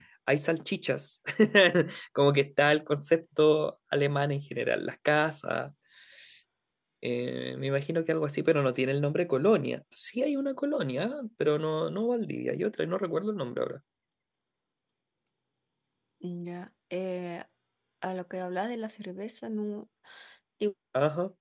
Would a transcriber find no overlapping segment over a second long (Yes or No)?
Yes